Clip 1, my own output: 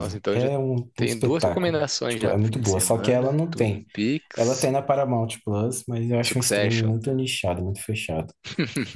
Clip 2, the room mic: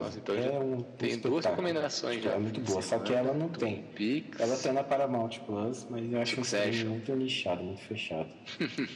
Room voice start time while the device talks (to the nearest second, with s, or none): none